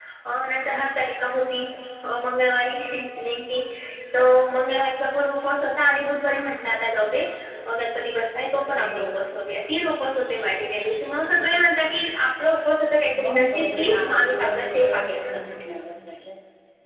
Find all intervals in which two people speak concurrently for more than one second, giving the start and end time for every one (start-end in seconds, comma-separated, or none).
13.2-15.4